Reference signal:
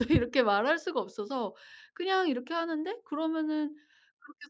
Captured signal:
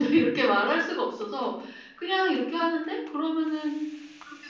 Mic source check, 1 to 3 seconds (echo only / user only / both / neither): echo only